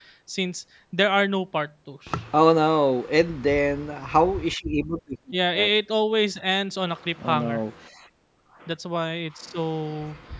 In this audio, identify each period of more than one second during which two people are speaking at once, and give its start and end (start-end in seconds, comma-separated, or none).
none